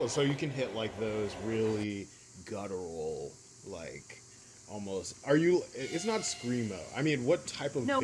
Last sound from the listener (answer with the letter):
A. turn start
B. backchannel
A